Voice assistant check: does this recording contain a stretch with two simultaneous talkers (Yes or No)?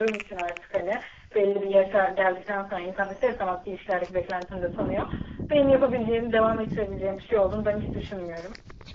No